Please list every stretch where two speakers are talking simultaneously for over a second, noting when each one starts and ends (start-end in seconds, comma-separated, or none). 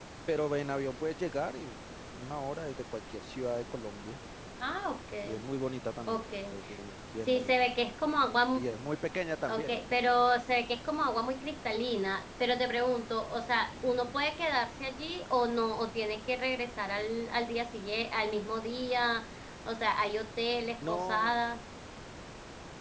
none